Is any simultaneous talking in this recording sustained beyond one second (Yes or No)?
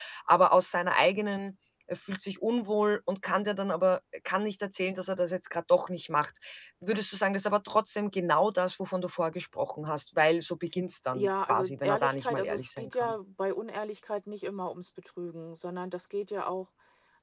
Yes